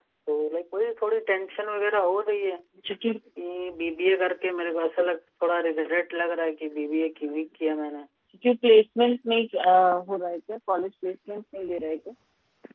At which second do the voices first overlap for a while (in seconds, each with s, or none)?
none